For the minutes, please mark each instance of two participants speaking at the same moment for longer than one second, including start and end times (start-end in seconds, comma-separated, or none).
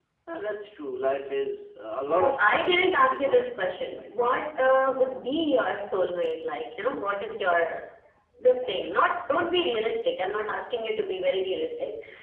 2.1-4.5